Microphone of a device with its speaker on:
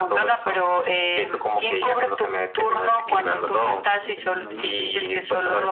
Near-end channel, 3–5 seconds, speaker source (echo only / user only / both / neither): both